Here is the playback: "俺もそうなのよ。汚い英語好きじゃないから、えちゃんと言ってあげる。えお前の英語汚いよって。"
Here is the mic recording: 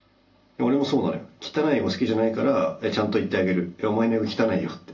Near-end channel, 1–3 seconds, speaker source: echo only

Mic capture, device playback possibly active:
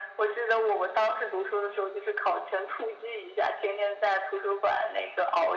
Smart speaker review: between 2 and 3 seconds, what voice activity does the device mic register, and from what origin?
echo only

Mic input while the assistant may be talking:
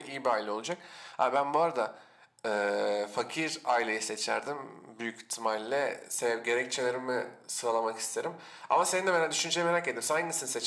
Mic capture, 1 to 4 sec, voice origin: echo only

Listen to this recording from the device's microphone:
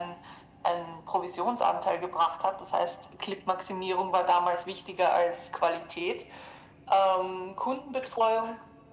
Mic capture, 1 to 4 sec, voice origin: echo only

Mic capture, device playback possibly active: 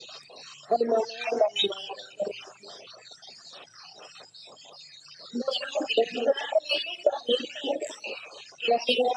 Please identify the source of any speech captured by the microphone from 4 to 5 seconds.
neither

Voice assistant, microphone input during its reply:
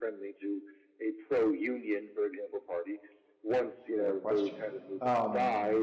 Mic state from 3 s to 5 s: both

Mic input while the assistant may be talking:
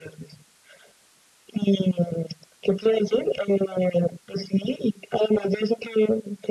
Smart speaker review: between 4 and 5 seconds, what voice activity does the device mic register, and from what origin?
echo only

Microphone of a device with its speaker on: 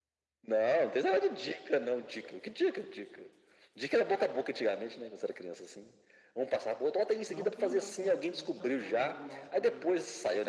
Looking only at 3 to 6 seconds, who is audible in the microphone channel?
echo only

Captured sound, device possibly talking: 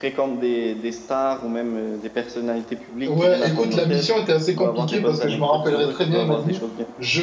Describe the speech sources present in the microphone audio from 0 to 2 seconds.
echo only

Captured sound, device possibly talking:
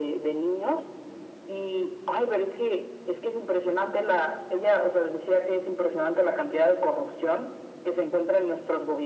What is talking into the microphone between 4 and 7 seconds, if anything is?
echo only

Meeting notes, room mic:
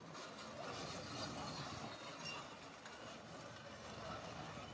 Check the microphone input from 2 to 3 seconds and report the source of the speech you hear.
neither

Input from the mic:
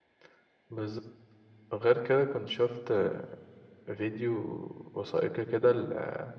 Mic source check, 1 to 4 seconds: user only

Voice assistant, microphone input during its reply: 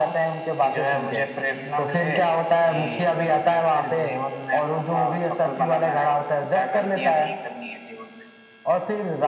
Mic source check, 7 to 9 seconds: echo only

